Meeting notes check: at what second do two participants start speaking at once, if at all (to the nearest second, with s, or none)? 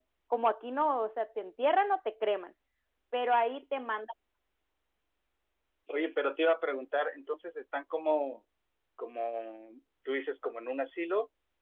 none